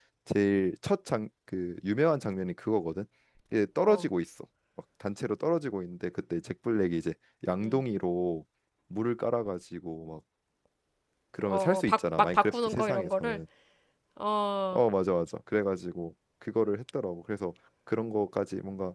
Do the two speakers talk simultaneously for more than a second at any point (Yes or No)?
Yes